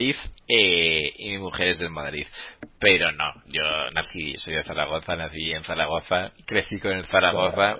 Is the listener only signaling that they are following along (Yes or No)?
Yes